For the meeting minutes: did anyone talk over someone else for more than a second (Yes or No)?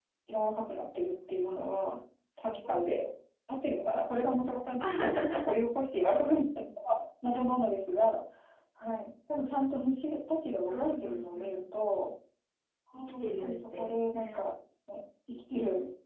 Yes